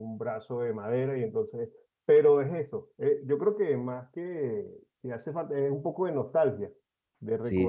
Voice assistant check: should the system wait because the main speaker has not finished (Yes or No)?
Yes